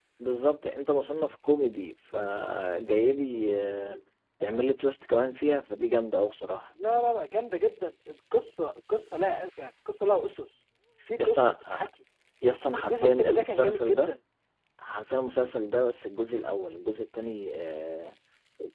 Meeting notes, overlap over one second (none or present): present